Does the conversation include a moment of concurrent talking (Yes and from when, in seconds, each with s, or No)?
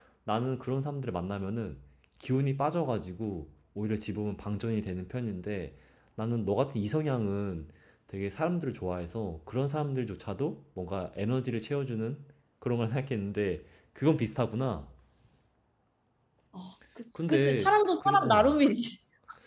Yes, from 17.3 s